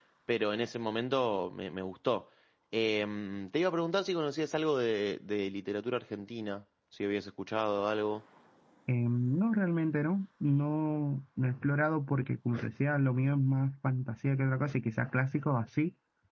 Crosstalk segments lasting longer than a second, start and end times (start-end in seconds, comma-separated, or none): none